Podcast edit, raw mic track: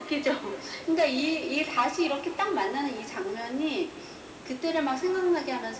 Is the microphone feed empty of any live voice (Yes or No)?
Yes